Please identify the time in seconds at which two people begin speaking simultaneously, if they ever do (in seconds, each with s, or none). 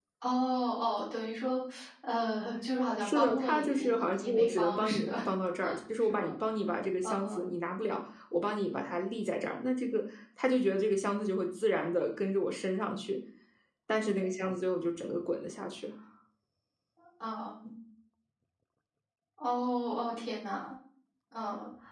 3.0 s